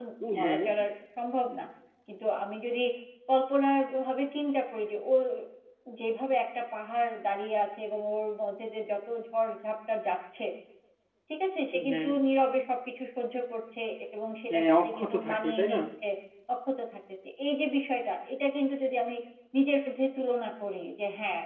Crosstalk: present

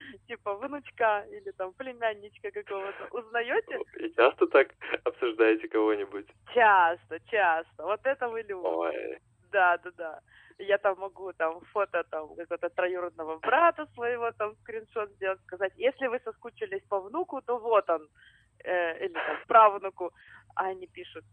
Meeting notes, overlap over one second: none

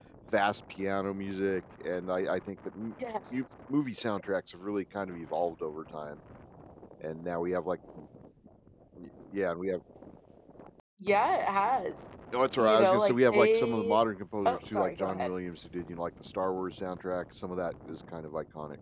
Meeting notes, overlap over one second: present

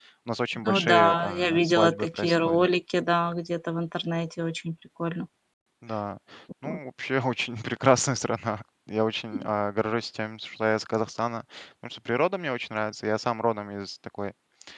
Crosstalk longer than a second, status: present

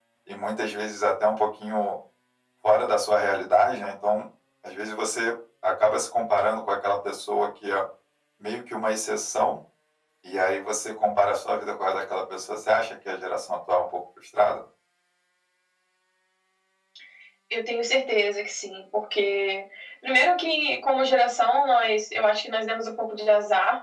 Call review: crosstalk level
none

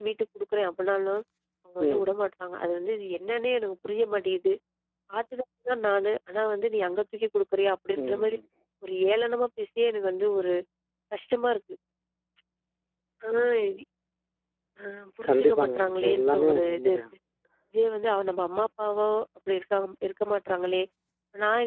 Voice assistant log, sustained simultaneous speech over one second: present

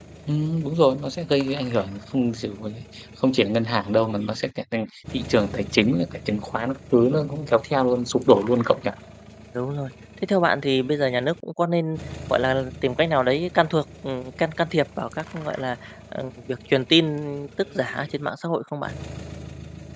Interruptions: none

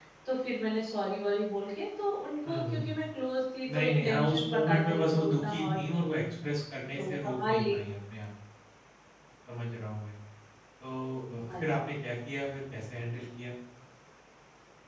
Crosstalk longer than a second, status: present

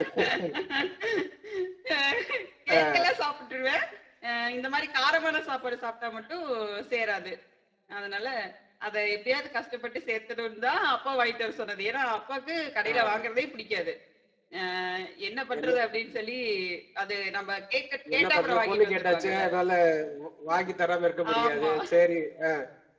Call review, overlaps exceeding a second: present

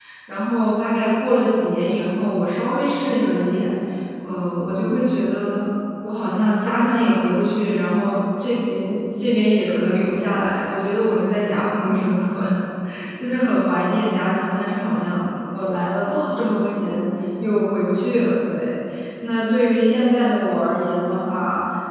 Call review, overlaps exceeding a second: none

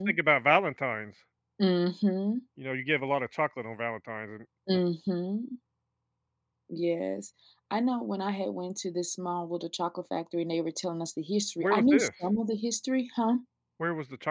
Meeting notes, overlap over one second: none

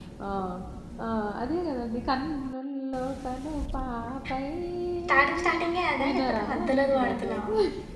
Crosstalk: present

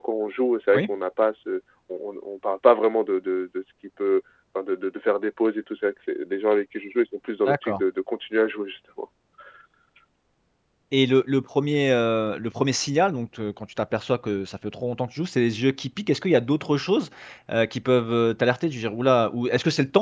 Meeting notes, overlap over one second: none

